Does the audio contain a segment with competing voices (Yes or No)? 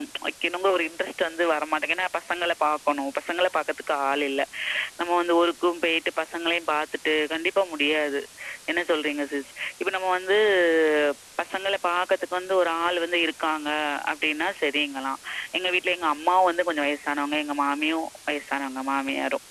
No